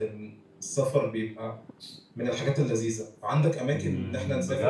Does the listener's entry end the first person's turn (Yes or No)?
Yes